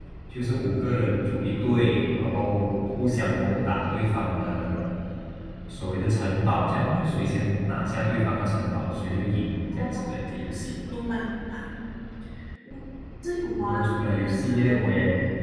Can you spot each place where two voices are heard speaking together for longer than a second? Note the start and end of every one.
13.6-14.9

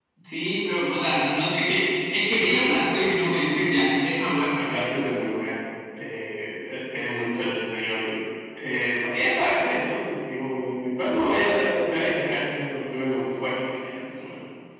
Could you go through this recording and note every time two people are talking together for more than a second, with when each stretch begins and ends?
none

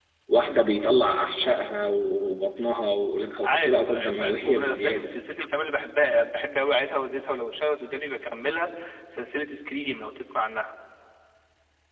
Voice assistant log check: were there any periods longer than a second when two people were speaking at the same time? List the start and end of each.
3.4-5.1

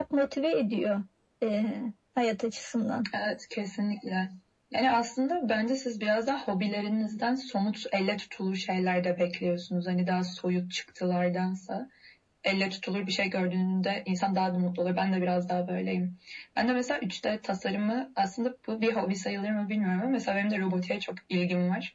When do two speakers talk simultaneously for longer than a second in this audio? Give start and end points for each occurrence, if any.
none

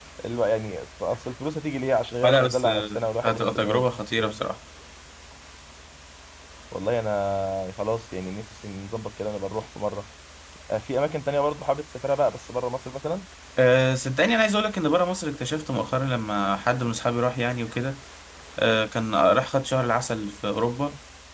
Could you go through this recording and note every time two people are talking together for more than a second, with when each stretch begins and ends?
2.2-3.9

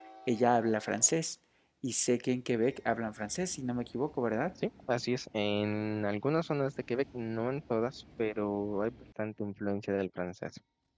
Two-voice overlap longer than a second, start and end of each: none

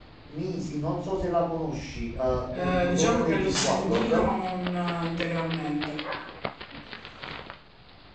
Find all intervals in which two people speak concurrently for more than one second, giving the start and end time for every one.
2.5-4.3

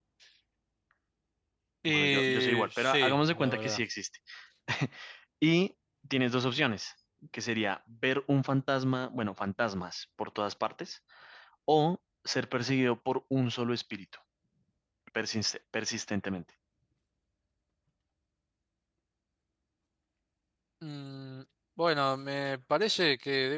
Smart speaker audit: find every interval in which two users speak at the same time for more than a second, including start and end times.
1.9-3.8

